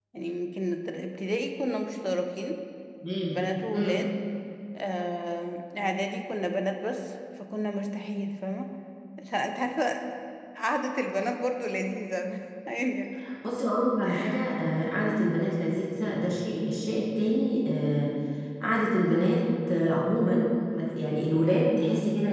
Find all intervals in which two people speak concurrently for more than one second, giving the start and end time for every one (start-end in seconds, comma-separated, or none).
none